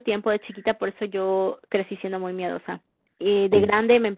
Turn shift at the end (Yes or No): No